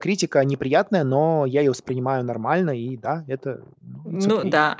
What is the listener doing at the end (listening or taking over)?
taking over